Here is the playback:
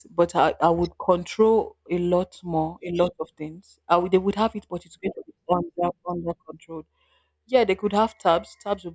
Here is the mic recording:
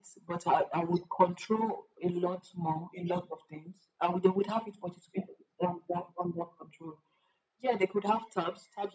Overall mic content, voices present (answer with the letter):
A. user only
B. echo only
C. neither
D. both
B